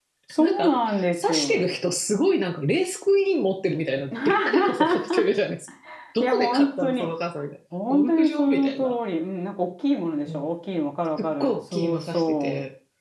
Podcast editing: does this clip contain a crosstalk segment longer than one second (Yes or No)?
Yes